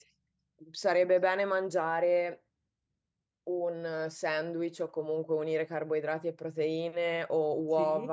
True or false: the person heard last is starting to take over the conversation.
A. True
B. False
B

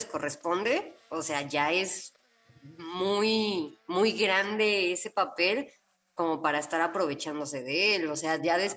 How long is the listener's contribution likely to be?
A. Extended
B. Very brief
A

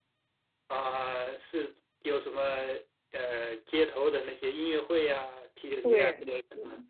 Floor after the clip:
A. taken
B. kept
A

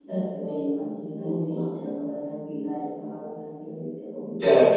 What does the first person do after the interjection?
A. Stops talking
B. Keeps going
A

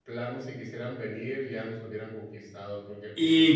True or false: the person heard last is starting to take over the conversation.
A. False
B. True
B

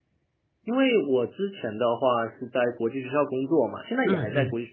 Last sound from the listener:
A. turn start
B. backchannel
B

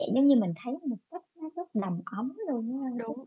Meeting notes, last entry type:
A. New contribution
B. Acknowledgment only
A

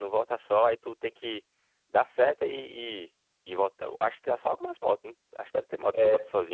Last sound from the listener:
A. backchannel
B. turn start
B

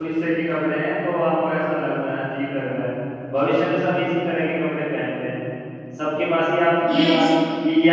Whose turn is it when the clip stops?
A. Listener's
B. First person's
B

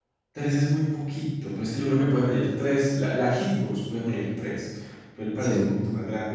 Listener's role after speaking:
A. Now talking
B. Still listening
B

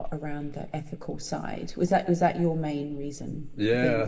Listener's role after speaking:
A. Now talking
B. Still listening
A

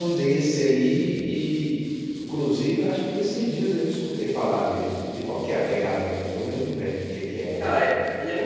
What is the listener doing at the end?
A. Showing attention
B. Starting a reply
B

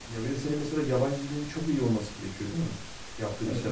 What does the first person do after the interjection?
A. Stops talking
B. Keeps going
A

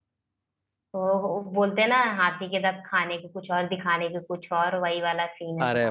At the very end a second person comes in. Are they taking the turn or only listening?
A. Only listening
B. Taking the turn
B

